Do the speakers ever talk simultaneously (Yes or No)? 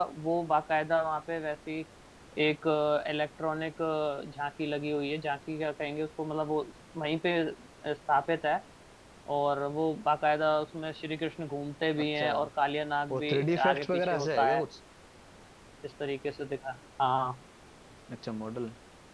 Yes